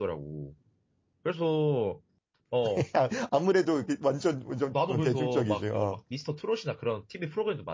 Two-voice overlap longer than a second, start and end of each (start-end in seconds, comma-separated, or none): 4.7-6.0